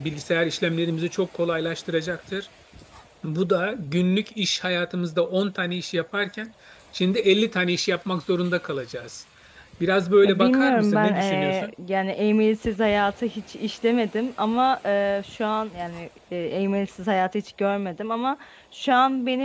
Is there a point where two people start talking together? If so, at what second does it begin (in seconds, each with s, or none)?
10.2 s